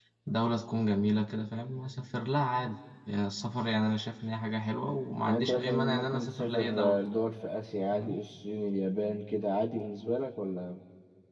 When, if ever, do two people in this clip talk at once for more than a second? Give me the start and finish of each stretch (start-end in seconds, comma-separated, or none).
5.2-7.0